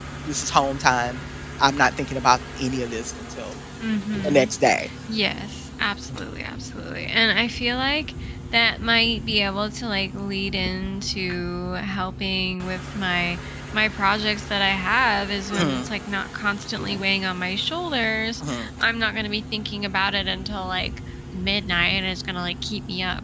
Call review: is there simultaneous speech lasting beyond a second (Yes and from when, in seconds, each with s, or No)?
No